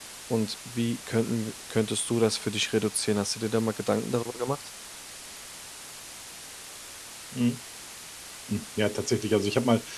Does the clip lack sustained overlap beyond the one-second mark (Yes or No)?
Yes